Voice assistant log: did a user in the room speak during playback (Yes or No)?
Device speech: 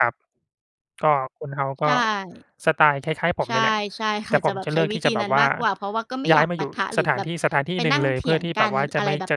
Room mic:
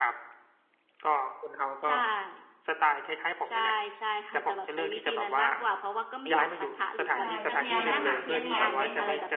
Yes